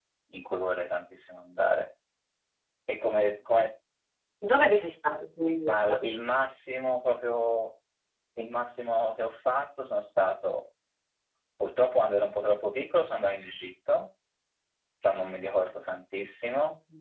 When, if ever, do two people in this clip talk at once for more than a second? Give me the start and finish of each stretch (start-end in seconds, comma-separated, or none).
none